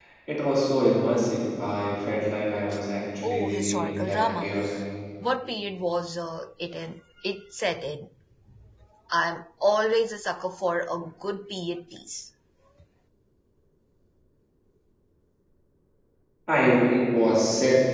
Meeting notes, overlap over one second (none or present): present